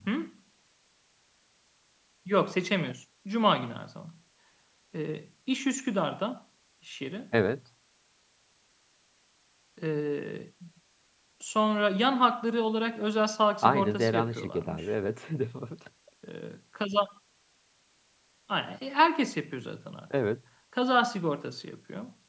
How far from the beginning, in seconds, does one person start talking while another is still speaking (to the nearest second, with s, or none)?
14 s